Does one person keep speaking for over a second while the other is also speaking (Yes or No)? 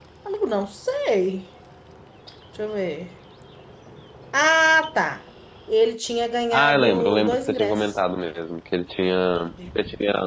Yes